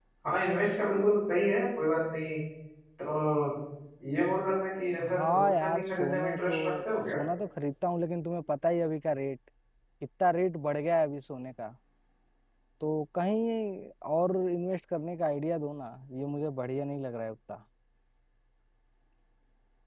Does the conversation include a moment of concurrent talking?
Yes, from 5.0 s

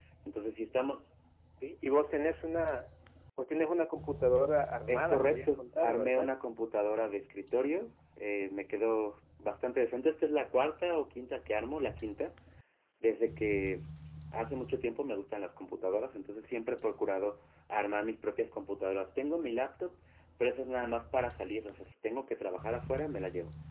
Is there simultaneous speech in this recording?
Yes, from 4.9 s

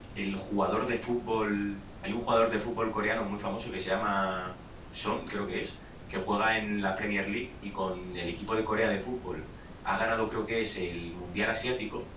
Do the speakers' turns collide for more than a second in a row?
No

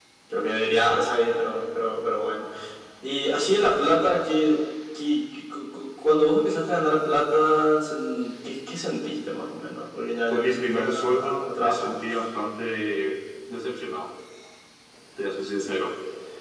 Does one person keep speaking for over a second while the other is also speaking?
Yes, from 10.3 s

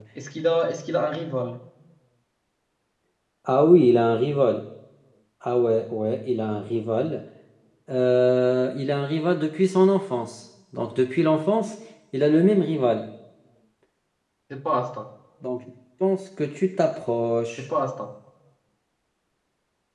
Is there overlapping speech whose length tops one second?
No

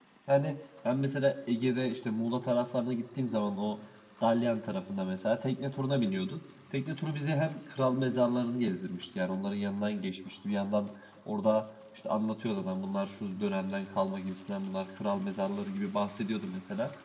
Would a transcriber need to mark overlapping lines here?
No

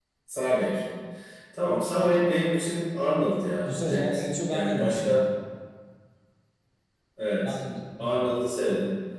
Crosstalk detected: Yes, from 3.6 s

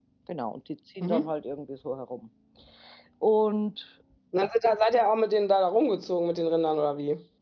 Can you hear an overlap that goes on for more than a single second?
No

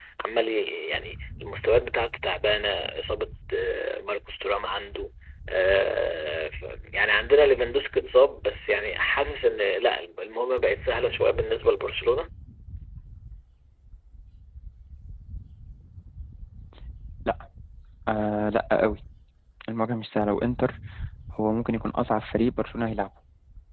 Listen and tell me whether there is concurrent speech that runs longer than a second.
No

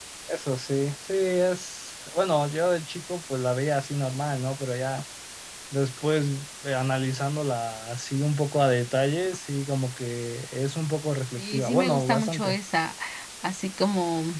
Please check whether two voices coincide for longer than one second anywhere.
Yes, from 11.4 s

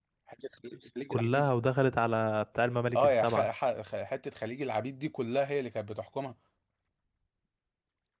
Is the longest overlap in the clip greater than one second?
No

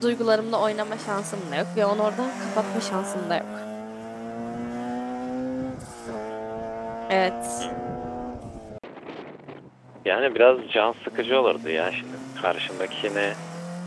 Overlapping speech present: No

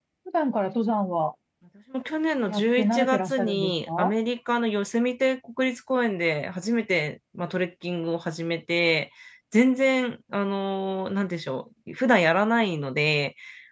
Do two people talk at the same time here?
Yes, from 2.5 s

